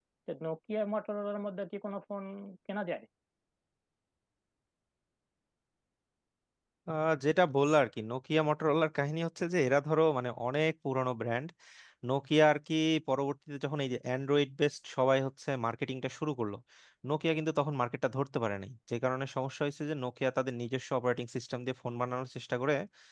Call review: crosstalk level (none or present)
none